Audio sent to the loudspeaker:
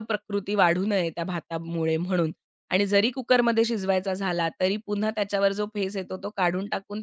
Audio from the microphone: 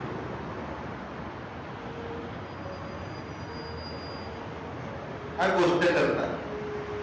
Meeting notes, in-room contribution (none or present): present